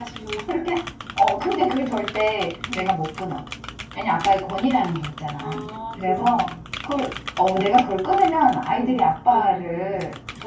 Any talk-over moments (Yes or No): Yes